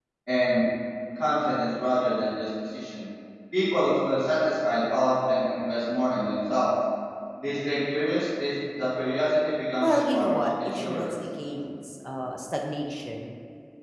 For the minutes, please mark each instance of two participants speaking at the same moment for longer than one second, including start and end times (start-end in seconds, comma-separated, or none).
9.8-11.1